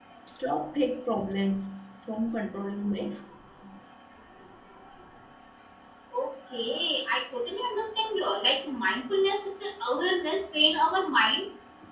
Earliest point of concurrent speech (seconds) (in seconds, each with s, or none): none